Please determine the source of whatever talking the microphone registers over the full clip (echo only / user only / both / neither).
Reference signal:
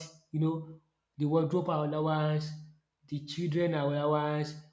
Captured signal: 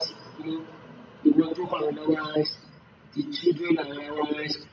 echo only